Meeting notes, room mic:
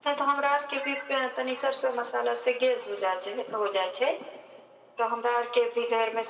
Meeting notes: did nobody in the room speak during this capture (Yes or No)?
Yes